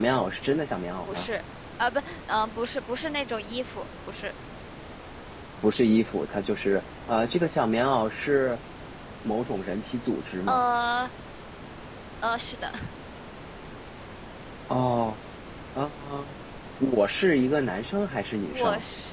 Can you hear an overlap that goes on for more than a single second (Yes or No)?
No